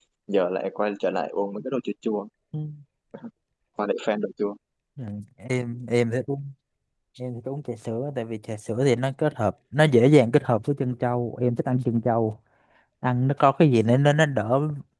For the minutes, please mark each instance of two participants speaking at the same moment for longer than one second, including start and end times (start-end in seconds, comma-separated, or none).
none